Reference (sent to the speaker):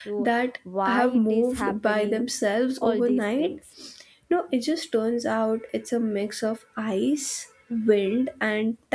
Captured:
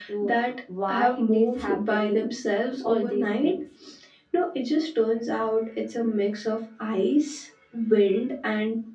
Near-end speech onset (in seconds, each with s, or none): none